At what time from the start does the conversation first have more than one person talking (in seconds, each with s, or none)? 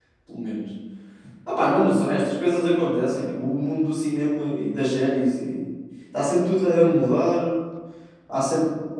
none